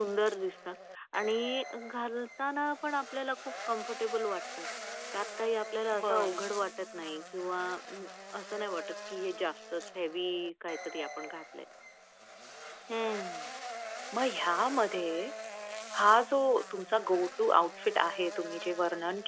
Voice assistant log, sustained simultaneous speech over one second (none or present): none